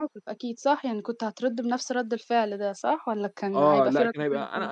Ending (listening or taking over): taking over